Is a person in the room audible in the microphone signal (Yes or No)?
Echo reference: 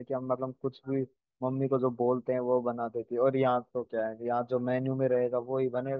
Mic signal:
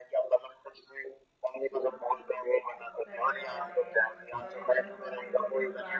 Yes